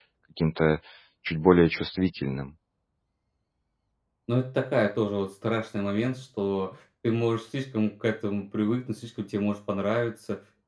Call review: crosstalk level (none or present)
none